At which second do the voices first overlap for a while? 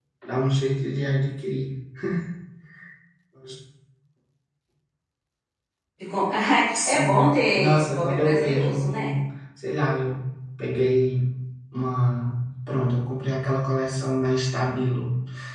6.7 s

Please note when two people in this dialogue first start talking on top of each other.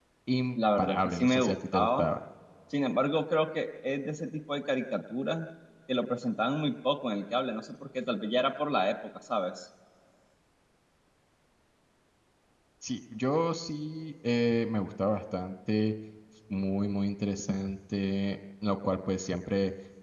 0.8 s

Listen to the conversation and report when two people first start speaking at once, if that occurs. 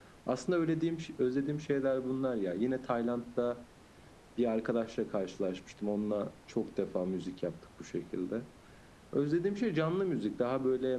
none

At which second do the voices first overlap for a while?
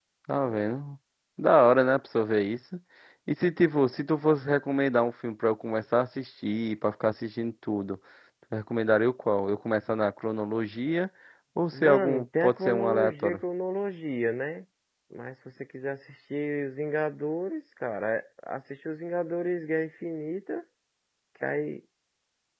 11.7 s

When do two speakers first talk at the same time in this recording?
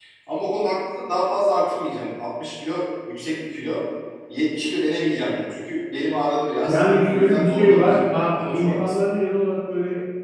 6.7 s

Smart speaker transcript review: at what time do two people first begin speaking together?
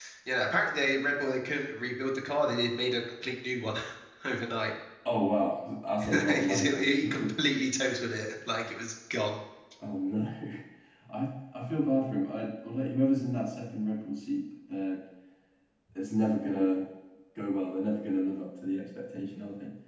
6.0 s

